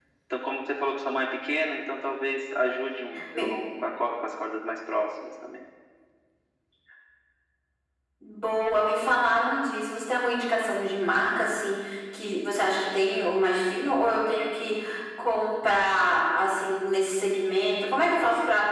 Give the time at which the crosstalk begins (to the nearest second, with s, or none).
none